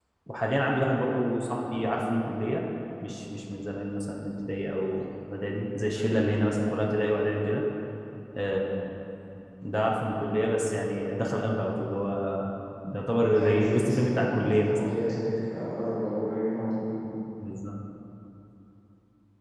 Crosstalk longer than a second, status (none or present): present